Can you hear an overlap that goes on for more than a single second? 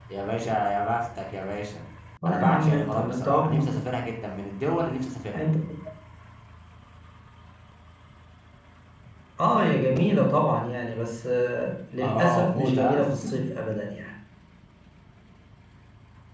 Yes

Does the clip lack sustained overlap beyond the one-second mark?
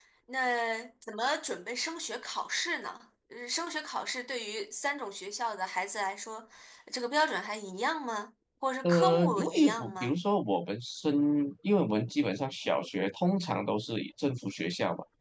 No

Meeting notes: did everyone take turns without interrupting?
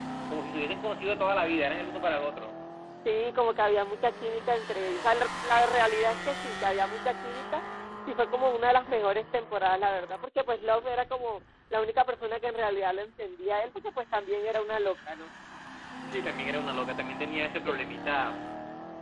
Yes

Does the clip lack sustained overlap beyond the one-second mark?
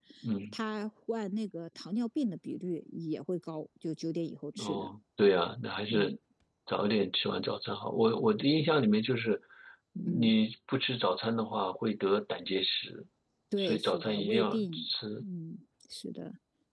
No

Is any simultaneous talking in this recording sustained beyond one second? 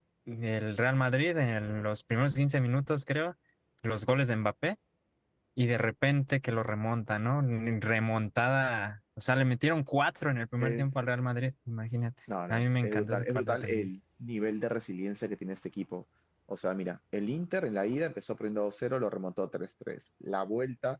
Yes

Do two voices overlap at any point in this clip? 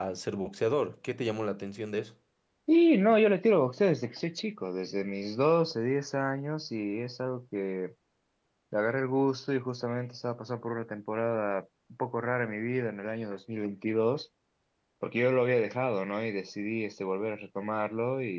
No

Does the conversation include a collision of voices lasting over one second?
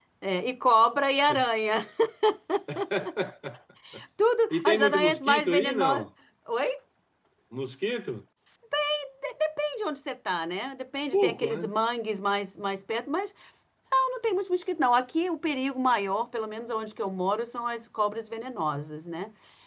Yes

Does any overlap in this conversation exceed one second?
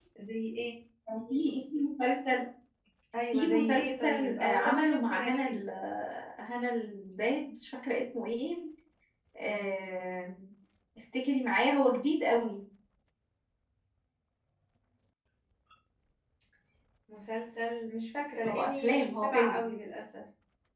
Yes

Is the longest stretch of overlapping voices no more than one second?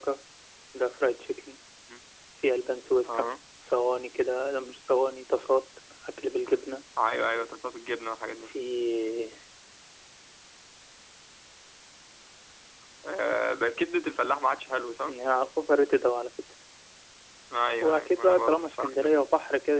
No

